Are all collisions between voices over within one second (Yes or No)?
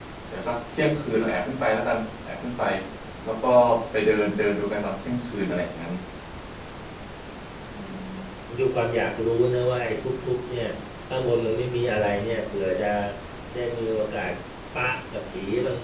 Yes